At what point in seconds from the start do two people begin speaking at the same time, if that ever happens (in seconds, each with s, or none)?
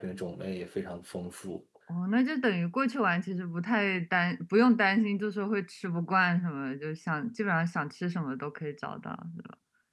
none